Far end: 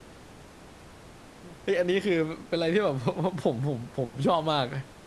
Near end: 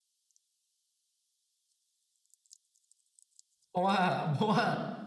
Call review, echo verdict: none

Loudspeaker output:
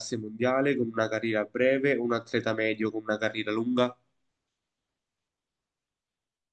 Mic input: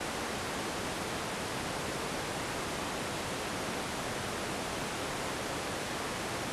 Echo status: none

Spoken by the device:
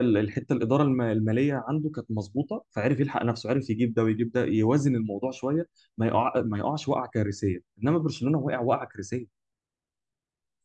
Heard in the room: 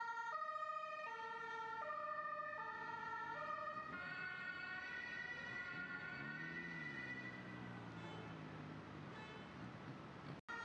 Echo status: none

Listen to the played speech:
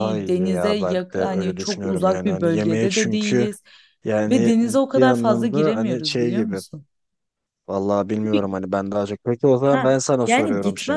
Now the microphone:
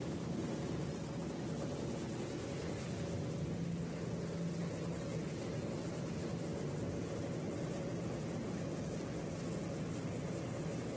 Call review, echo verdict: none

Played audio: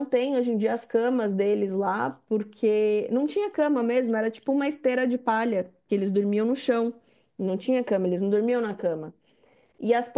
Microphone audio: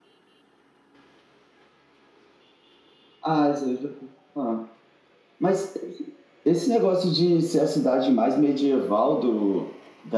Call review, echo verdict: none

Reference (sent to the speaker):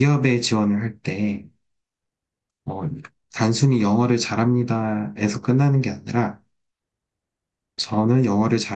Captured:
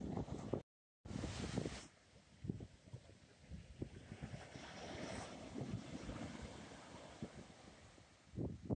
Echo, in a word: none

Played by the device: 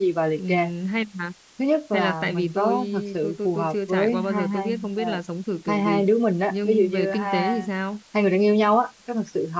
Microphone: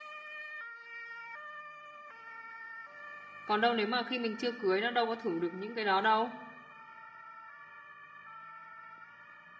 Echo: none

